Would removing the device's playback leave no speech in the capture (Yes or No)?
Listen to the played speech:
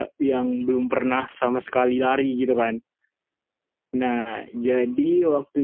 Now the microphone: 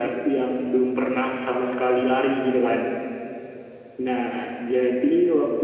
Yes